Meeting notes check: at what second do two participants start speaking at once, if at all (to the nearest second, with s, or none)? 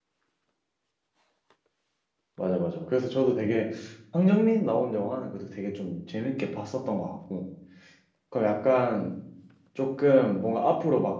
none